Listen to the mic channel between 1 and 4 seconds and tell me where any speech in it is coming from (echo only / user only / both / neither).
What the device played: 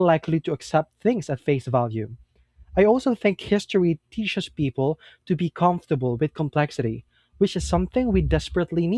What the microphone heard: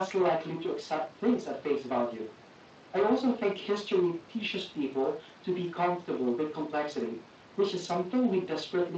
echo only